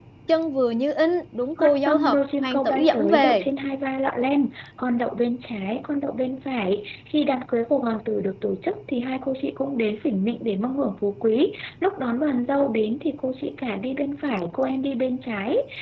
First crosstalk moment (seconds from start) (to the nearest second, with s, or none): 2 s